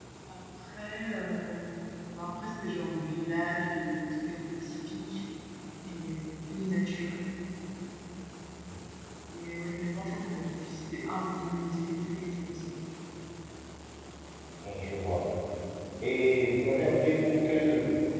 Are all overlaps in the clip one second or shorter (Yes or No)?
Yes